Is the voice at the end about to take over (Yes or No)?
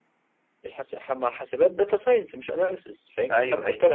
No